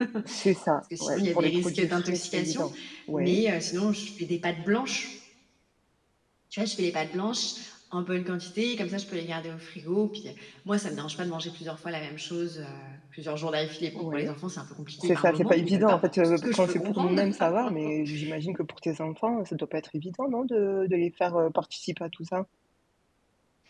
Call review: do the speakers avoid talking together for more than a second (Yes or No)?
No